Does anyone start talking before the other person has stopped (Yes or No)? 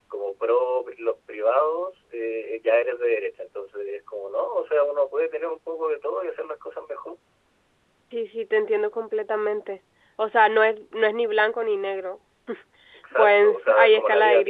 Yes